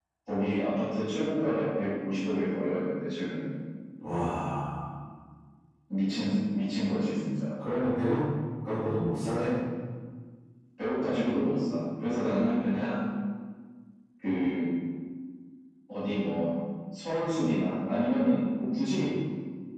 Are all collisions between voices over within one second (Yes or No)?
Yes